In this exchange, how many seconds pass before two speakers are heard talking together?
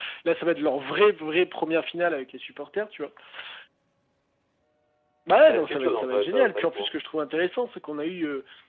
5.5 s

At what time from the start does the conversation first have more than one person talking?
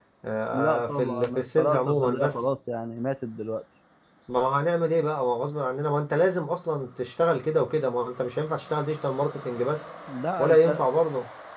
0.5 s

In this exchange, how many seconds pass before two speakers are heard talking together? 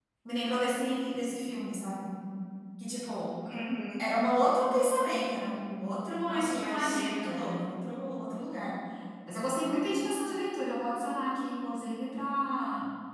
6.3 s

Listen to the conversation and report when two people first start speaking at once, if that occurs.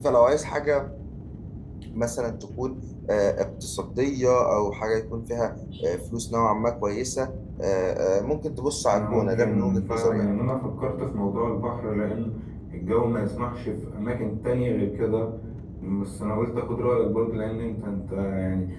8.9 s

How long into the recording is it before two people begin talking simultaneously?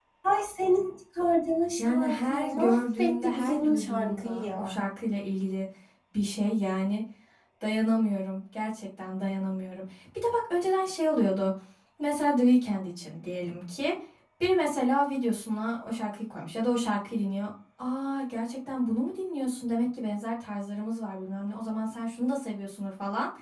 1.8 s

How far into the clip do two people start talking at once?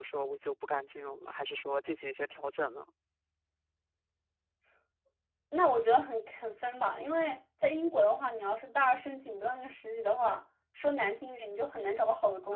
none

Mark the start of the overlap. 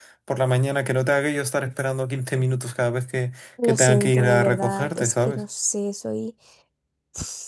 3.6 s

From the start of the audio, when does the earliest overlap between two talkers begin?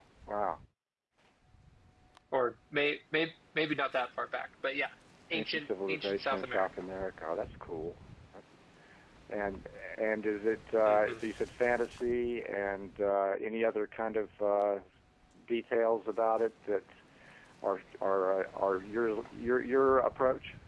5.3 s

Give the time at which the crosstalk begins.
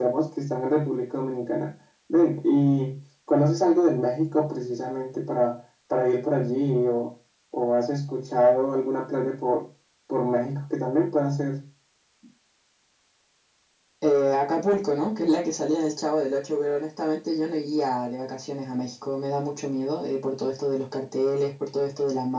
none

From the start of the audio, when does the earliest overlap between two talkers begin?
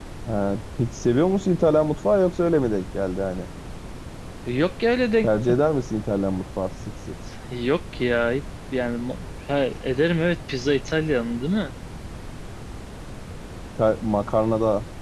none

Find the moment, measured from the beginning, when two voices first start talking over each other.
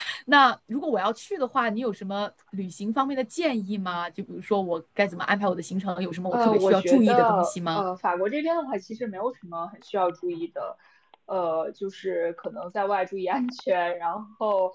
6.3 s

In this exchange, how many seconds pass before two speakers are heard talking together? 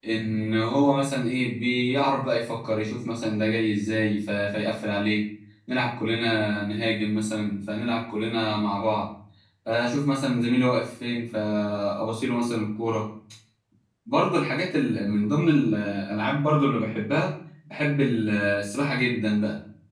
none

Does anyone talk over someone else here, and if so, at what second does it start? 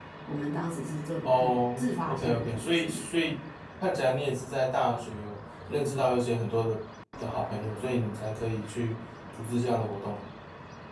1.2 s

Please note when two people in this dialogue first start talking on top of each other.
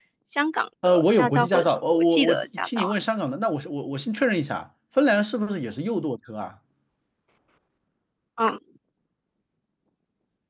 0.8 s

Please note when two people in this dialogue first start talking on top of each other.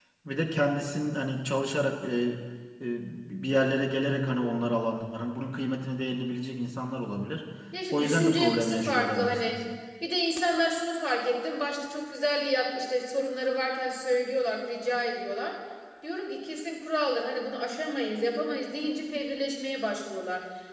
7.9 s

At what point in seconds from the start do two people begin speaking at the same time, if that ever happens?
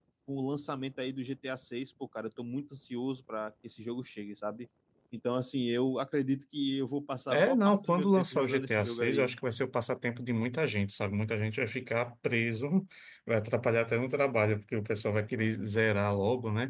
7.3 s

